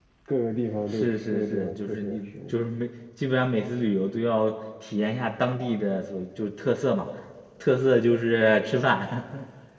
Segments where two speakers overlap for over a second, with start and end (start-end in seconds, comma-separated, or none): 0.9-2.6